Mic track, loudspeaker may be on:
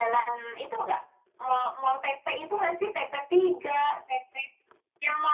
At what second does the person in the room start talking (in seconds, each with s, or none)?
none